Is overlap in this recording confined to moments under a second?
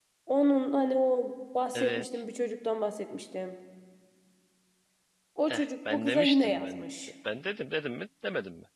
No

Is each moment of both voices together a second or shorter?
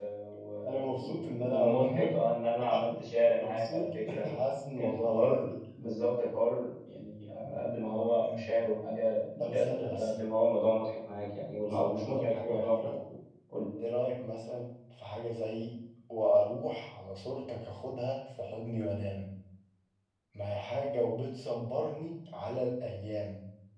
No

